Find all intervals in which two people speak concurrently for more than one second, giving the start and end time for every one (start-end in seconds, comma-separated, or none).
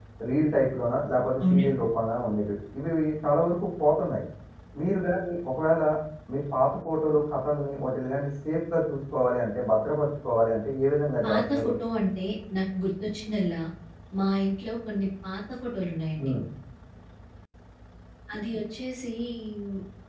none